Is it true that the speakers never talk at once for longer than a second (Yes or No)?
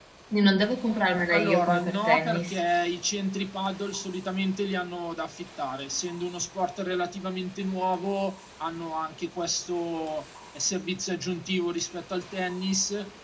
No